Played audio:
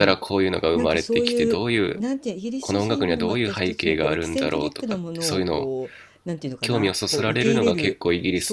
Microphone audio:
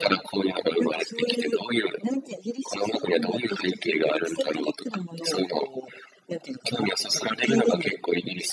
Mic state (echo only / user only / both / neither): echo only